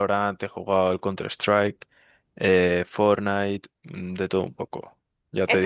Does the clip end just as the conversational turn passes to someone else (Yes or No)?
Yes